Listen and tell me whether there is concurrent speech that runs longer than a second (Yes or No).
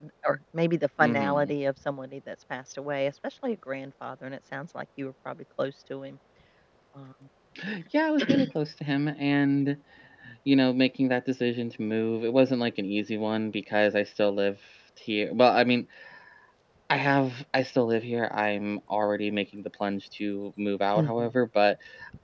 No